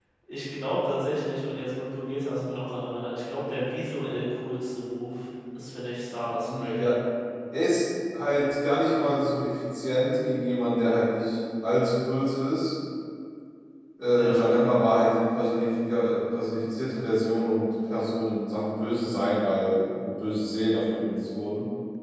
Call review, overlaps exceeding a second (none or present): none